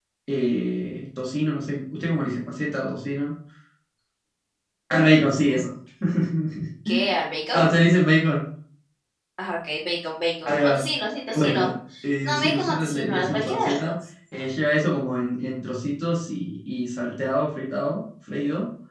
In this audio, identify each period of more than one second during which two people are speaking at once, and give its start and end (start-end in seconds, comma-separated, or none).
12.2-13.9